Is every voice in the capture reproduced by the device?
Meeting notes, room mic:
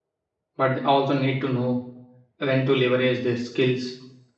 No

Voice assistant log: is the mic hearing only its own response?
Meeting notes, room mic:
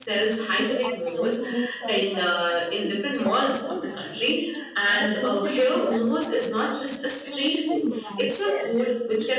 No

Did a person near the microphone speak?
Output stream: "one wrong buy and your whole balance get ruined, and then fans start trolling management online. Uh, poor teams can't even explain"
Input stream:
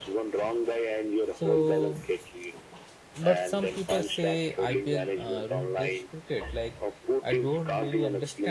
Yes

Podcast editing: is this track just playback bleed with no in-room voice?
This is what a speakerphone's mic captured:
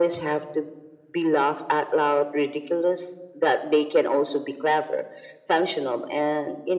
Yes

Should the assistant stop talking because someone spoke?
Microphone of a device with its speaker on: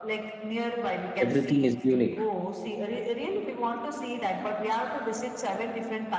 Yes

